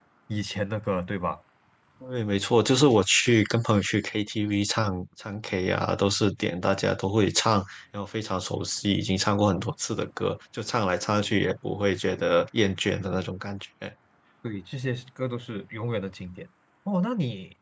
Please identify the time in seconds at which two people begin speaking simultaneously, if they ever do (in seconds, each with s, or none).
none